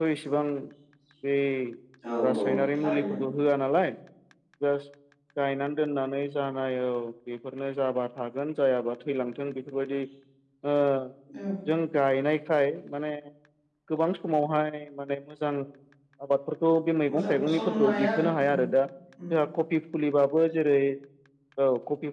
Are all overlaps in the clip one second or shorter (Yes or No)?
No